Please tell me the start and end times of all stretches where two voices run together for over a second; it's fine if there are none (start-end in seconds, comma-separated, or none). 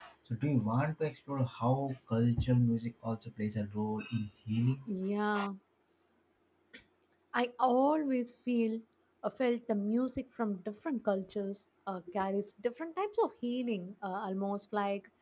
none